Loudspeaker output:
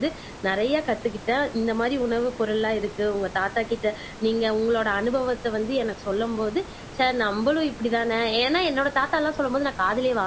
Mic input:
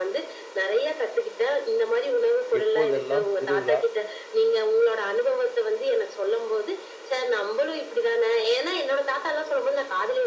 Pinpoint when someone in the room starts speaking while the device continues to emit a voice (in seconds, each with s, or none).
2.6 s